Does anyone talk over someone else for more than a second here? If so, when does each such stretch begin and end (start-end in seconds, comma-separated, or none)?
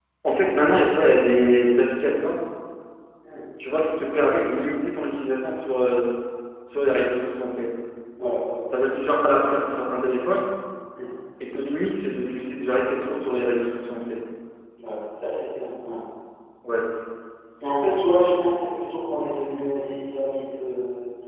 none